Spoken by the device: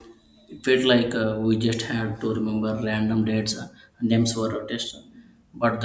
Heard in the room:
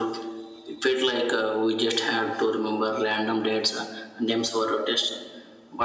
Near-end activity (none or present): none